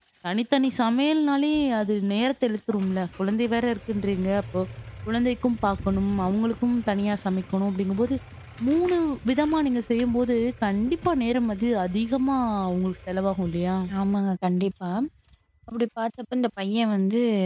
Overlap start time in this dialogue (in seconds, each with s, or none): none